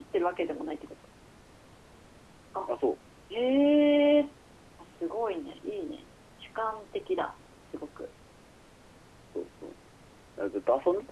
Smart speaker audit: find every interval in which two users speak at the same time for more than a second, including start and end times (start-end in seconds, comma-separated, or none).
none